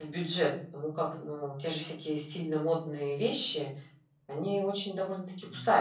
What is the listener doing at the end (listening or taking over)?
taking over